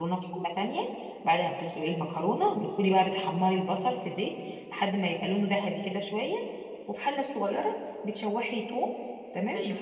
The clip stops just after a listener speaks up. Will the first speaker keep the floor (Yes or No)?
Yes